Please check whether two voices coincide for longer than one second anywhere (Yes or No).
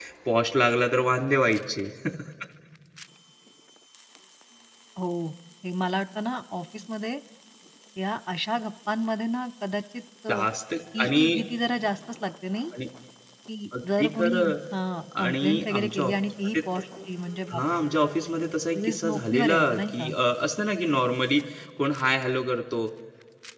Yes